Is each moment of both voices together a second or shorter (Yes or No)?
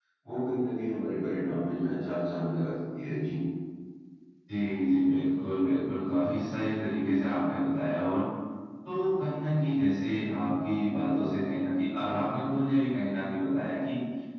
Yes